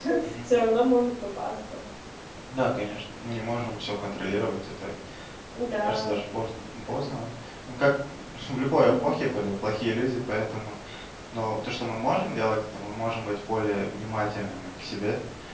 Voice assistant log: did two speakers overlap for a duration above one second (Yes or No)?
No